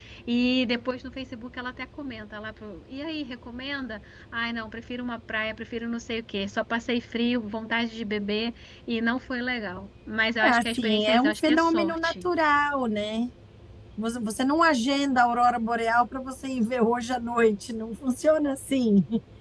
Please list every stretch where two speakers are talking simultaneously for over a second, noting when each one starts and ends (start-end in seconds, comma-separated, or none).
10.4-12.3